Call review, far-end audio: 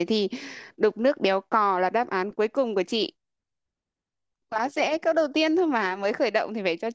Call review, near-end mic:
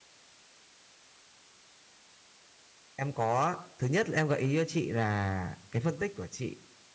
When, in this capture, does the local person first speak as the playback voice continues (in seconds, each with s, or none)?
3.0 s